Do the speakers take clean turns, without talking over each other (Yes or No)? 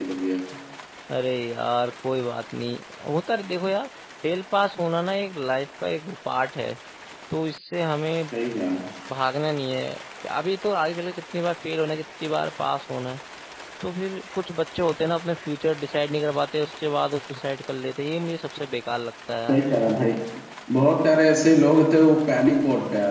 Yes